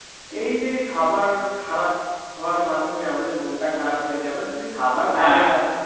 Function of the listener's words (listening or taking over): listening